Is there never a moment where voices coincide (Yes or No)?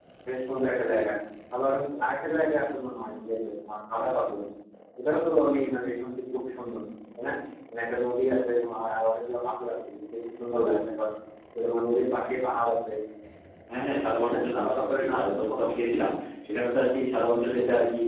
No